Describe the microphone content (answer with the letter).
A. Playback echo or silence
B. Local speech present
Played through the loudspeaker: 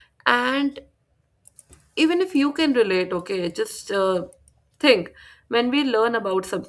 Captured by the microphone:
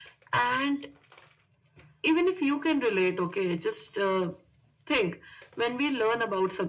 A